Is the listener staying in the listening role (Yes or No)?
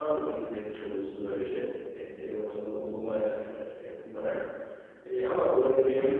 No